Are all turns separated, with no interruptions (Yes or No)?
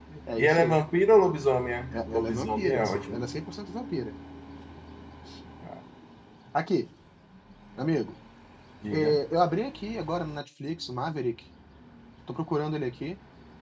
No